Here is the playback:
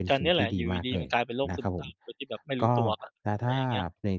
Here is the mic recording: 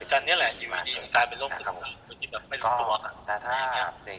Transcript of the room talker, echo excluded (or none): none